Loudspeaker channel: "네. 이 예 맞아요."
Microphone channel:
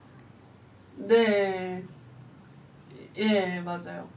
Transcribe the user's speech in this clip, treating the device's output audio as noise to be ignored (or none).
none